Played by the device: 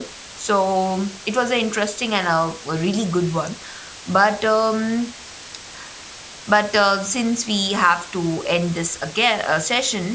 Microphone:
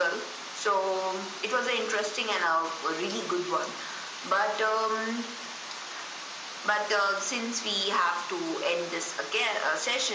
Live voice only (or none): none